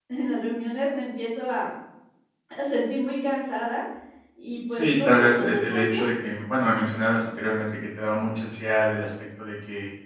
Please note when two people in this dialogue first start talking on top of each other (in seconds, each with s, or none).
4.7 s